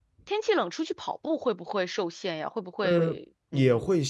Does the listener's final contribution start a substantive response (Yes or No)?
Yes